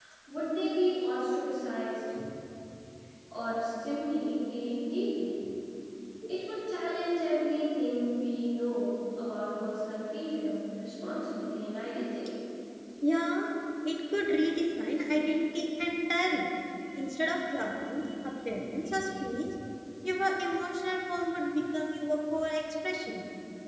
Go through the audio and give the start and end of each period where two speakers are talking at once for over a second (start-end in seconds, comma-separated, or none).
none